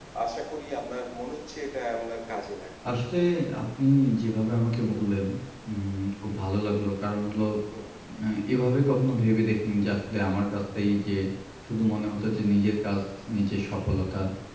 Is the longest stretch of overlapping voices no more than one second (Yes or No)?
Yes